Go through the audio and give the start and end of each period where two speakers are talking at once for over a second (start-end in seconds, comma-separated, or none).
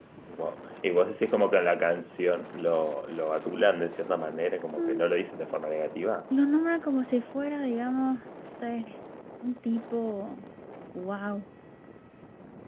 none